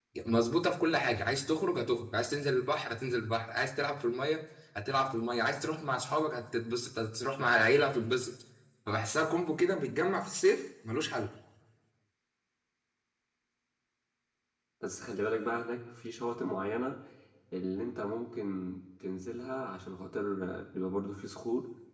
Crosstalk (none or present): none